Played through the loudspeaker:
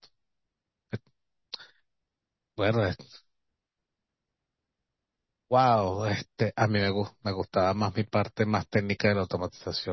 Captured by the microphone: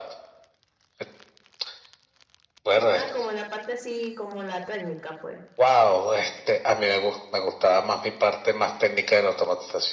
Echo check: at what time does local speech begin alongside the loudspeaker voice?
2.9 s

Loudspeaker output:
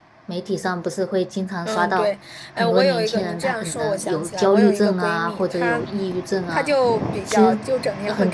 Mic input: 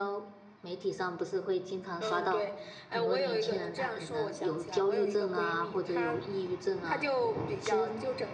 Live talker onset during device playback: none

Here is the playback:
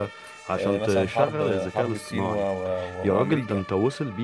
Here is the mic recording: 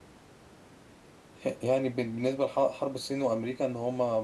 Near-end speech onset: 1.4 s

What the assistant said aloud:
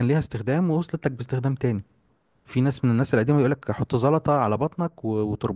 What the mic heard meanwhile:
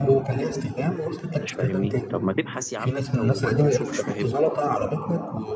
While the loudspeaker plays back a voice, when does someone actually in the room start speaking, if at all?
1.3 s

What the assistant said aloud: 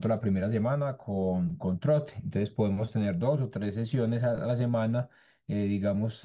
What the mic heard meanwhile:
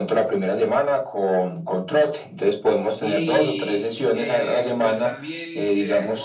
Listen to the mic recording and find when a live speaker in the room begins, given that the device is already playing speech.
3.0 s

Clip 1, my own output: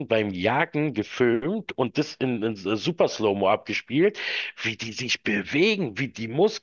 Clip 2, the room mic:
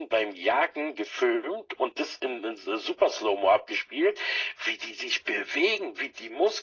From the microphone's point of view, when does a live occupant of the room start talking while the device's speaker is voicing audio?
none

